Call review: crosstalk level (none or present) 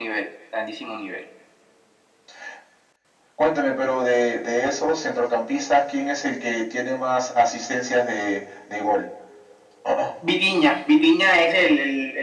none